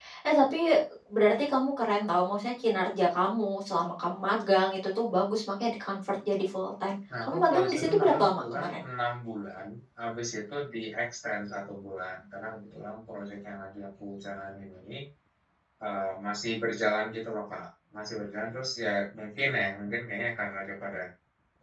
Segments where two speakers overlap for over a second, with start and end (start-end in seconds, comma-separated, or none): 7.2-8.7